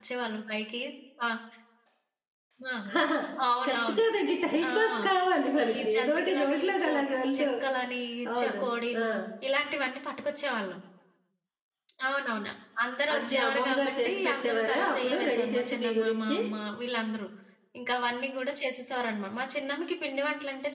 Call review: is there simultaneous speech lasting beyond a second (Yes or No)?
Yes